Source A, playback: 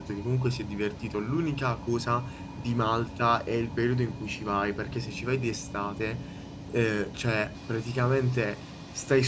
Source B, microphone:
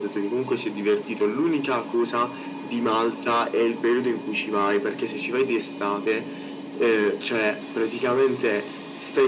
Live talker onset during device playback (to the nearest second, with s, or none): none